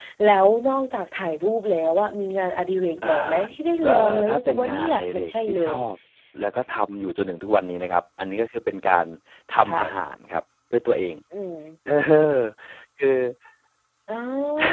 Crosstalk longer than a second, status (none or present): present